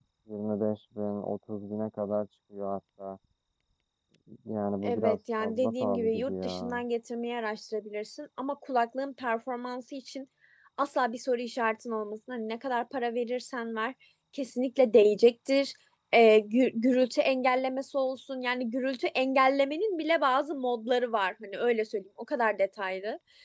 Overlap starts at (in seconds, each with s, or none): 4.8 s